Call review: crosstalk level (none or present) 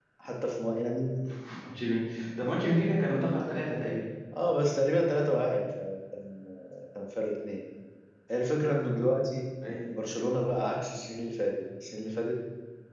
none